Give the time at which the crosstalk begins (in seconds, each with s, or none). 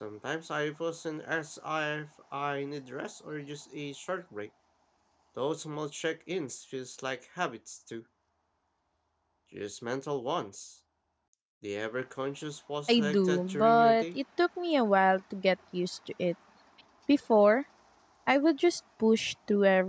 12.9 s